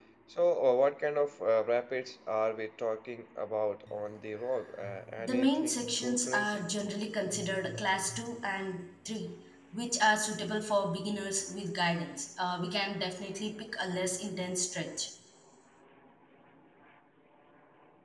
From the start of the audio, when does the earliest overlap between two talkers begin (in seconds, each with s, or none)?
5.2 s